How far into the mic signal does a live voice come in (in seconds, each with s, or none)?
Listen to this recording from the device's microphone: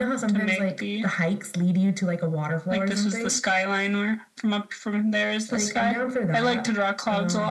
none